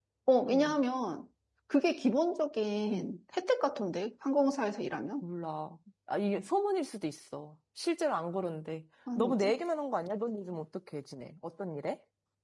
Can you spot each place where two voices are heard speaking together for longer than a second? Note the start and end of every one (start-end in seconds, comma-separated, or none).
none